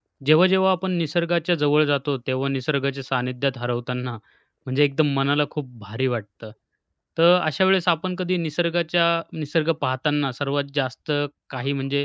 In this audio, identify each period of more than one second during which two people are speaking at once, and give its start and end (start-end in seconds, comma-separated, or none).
none